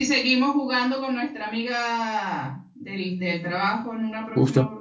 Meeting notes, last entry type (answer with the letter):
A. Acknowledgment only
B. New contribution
B